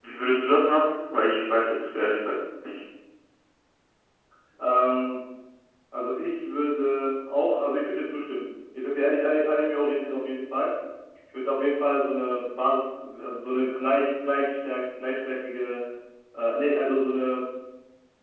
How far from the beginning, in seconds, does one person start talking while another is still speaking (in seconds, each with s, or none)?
none